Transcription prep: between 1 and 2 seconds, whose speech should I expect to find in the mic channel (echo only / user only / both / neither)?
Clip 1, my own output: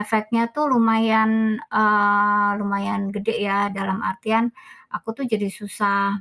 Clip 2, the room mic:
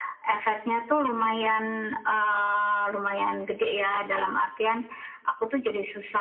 both